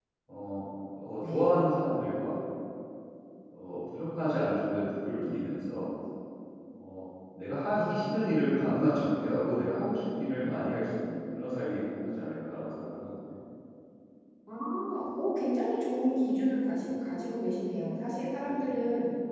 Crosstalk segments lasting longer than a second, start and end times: none

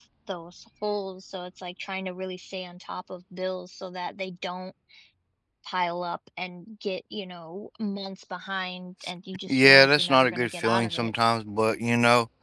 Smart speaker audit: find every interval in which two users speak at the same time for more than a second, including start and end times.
9.5-11.1

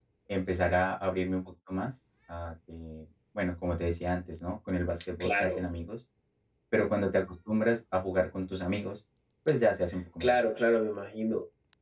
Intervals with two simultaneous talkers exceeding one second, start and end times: none

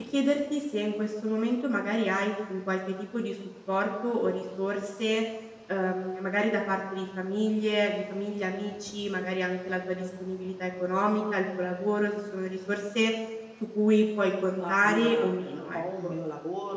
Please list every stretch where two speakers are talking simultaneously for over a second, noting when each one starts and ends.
14.6-16.2

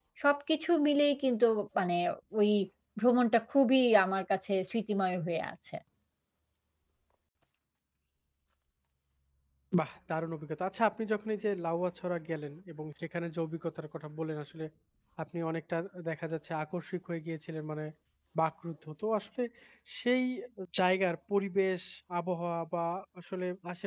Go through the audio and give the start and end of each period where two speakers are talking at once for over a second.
none

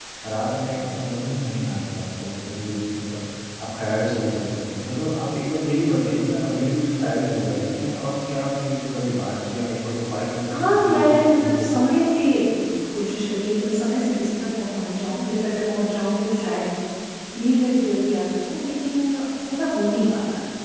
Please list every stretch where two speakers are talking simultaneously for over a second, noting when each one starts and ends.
10.5-11.7

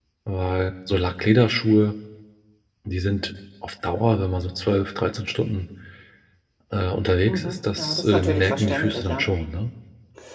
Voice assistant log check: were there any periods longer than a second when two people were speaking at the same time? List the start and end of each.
7.3-9.3

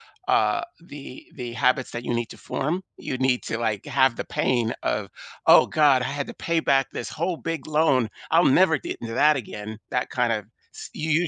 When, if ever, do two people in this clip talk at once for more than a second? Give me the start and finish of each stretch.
none

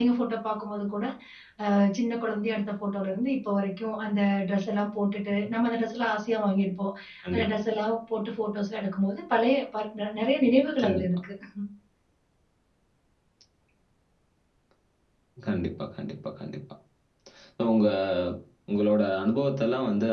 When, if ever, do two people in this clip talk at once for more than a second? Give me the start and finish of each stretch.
none

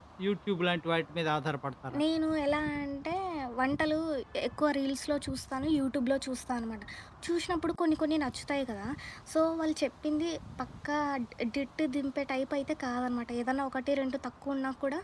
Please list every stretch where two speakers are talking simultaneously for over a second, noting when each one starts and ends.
none

